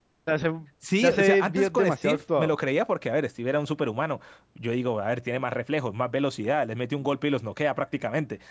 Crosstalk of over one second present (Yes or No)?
Yes